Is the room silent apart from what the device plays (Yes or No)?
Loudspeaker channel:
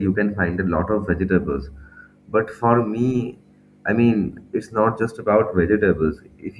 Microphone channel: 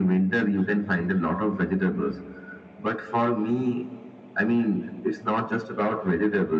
Yes